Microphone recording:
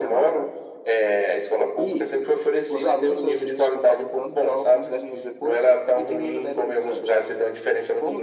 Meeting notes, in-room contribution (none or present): none